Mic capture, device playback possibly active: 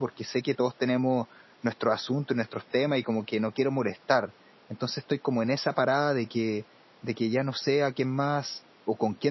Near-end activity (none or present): present